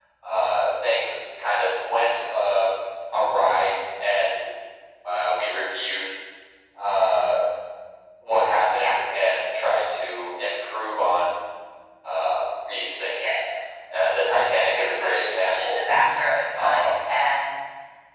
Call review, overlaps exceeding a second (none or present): present